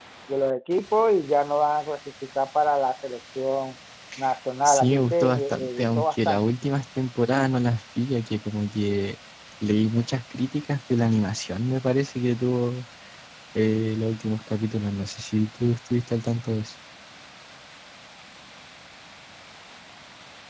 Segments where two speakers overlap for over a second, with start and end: 4.6-6.4

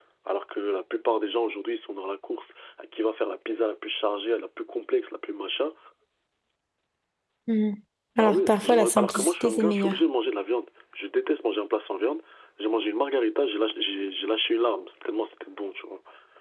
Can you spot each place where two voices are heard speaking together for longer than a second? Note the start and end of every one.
8.2-10.0

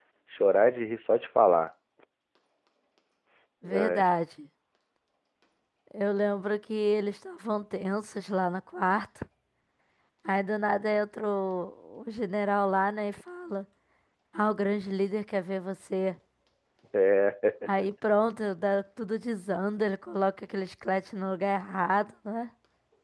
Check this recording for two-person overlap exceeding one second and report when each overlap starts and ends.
none

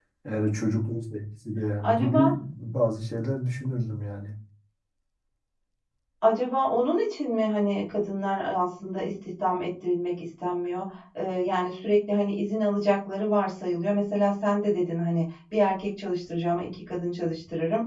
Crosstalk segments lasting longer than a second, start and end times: none

